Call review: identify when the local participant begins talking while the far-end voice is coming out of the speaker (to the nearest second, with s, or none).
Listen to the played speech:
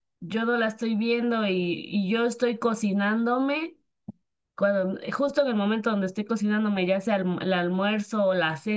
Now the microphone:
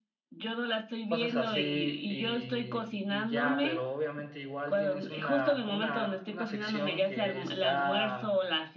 1 s